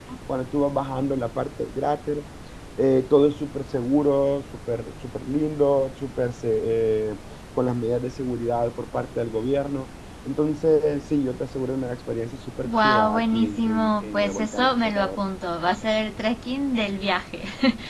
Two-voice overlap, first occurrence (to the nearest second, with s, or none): 13 s